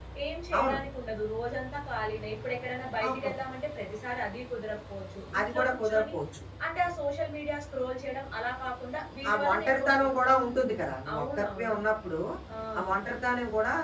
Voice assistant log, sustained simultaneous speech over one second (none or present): present